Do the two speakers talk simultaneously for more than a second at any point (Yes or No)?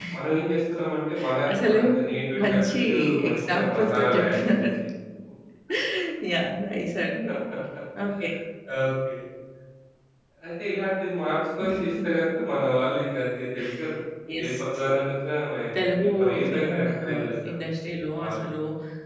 Yes